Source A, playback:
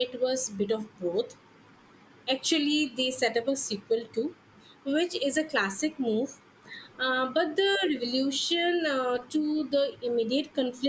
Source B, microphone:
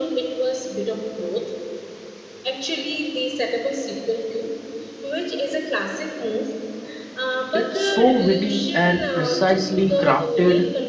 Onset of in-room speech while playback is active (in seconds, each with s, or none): 7.5 s